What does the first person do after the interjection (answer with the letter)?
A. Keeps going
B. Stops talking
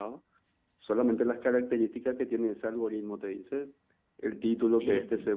A